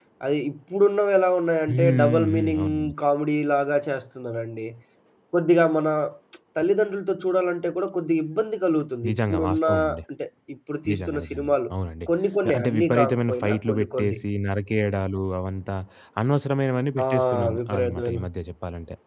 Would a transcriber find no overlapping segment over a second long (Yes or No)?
No